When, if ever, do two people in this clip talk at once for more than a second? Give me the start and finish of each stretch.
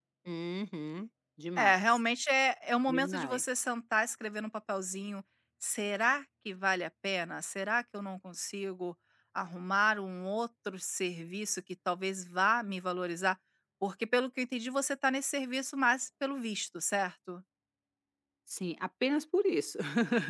none

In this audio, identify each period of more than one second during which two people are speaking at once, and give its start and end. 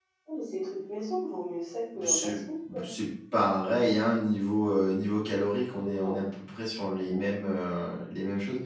none

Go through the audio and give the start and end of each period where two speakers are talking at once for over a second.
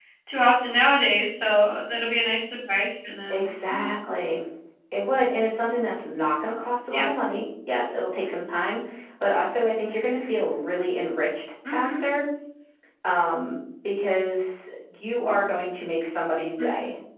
none

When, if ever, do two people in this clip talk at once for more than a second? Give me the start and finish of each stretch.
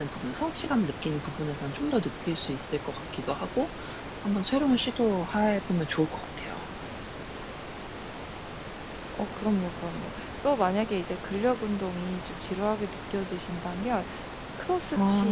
none

